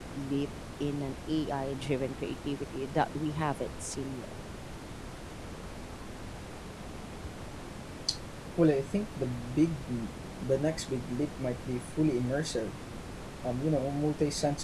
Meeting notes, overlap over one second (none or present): none